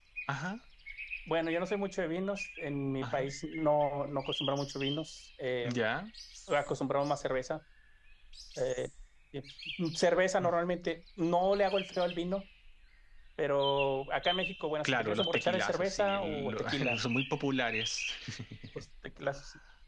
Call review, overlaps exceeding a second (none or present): present